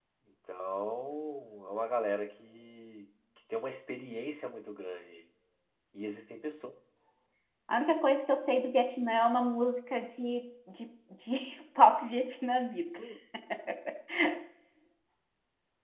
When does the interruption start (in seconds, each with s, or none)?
none